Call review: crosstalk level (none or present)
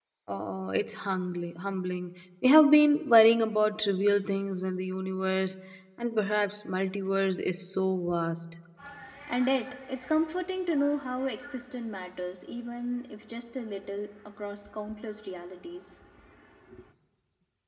none